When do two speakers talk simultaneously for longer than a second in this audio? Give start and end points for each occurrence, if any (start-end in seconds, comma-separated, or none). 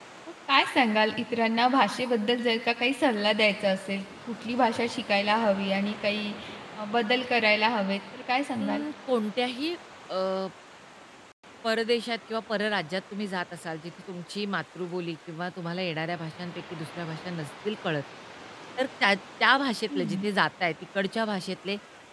none